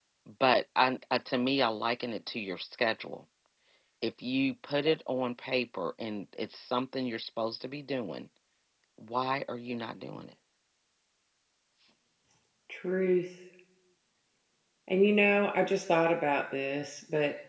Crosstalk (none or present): none